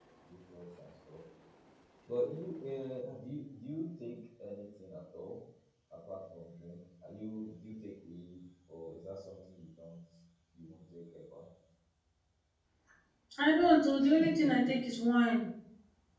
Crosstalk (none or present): none